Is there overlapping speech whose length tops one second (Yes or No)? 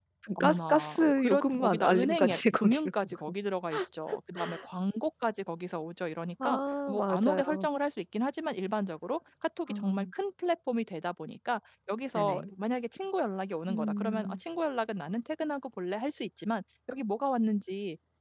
Yes